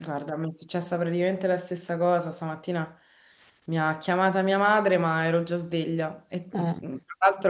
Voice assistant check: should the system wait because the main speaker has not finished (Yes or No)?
Yes